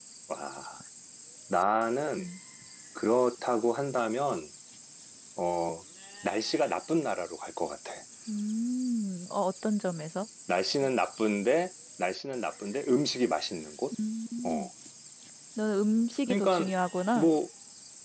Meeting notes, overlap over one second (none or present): none